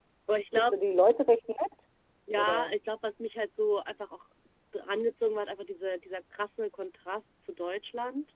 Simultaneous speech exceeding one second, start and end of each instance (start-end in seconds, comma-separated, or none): none